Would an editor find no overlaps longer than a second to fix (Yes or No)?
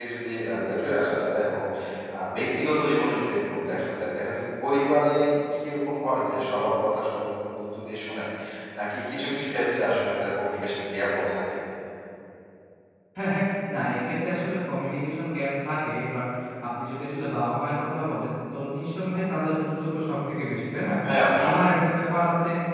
Yes